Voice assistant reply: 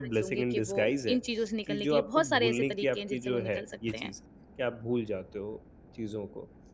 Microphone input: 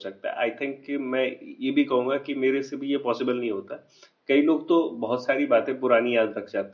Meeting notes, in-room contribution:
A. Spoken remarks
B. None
A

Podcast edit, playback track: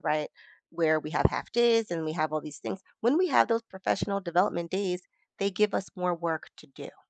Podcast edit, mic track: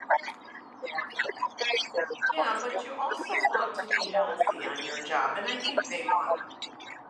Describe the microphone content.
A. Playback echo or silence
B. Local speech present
B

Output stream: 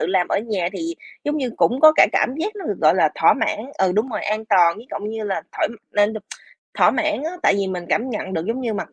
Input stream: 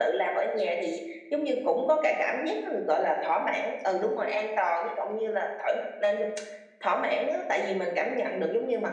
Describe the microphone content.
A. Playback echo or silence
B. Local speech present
A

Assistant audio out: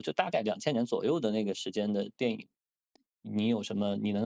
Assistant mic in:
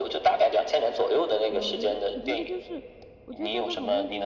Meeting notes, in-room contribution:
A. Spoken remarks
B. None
A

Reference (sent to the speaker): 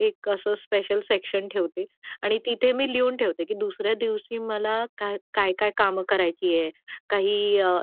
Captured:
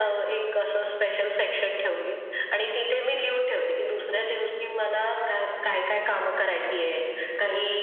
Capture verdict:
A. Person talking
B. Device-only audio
B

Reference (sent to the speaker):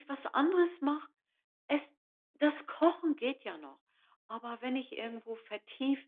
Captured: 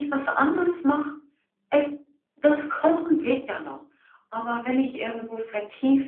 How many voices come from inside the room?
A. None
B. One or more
A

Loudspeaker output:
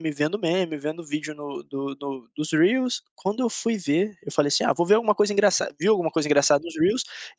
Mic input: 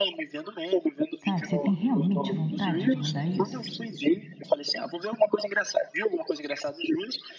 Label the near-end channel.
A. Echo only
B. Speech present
B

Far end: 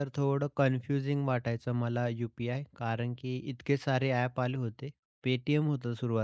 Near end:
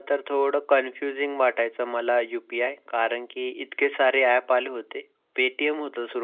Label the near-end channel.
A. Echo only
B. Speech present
A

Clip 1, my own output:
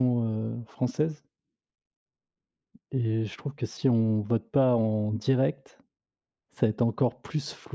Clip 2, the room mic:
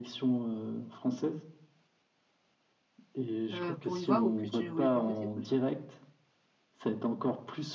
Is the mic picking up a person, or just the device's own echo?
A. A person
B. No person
A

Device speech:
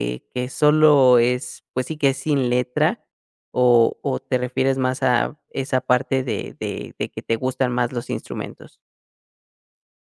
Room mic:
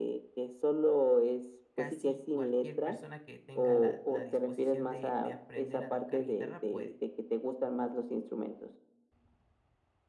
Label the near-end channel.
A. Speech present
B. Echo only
A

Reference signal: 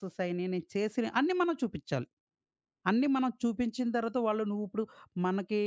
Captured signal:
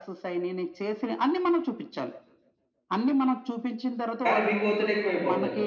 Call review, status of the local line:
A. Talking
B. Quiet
A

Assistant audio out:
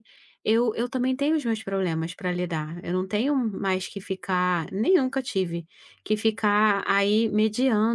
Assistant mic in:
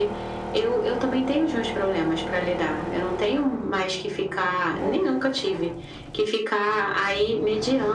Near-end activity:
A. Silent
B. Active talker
A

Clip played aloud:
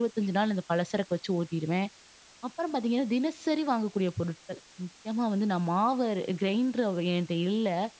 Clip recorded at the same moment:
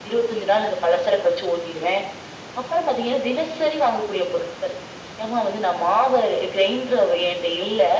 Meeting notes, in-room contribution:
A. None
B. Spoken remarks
A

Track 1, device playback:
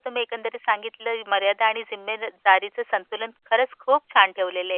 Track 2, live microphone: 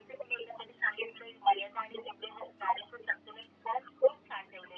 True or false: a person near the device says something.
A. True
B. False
B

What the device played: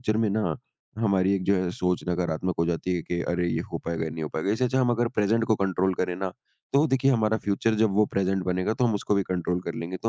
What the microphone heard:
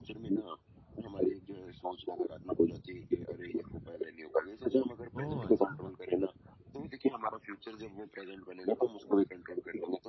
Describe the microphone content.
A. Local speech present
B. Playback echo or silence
A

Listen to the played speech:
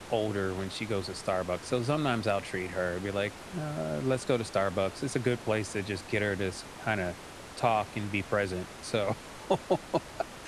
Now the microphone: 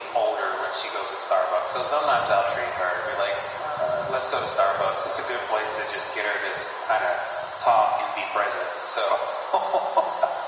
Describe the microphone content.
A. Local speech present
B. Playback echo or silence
B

